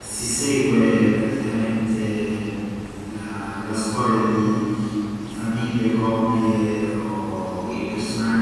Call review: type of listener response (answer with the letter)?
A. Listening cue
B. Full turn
A